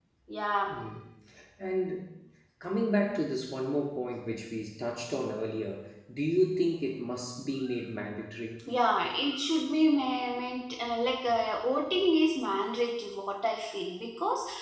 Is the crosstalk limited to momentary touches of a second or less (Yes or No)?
Yes